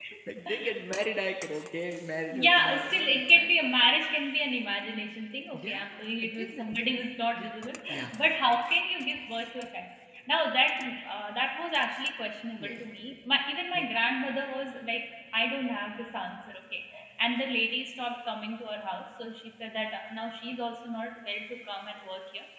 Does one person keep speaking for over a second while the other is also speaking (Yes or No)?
Yes